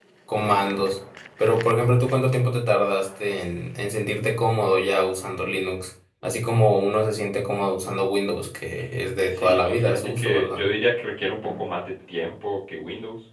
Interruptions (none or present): present